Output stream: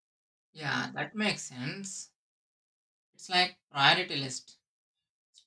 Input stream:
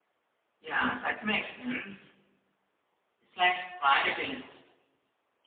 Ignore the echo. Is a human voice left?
No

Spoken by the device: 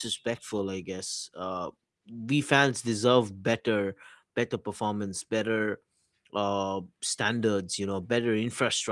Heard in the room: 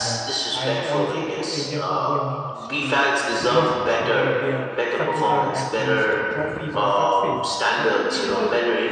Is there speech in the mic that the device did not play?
Yes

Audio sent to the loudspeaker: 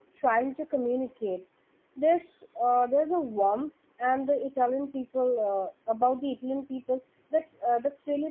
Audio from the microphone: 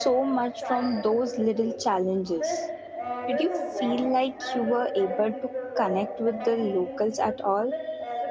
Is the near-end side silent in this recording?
No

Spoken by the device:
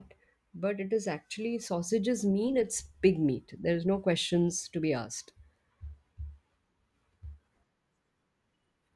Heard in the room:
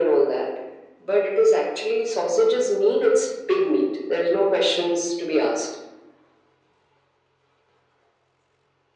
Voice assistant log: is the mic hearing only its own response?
Yes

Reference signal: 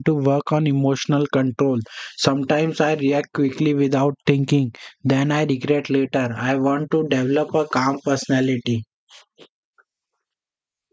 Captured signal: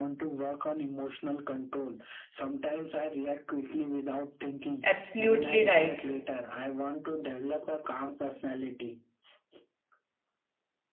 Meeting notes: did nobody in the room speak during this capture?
No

